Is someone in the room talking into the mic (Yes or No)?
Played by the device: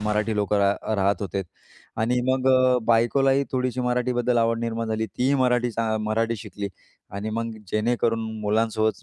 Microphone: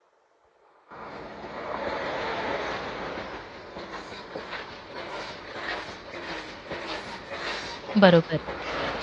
Yes